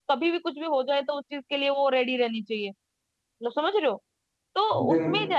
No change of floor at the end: Yes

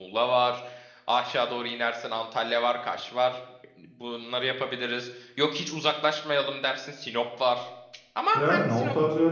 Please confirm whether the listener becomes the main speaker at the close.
Yes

